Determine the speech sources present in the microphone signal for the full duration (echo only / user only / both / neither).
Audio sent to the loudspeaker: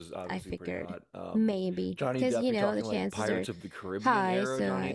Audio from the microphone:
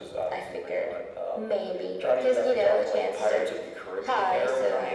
echo only